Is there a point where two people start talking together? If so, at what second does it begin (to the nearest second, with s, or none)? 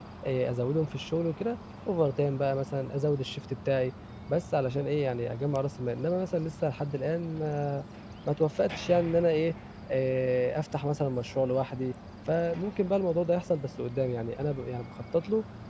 none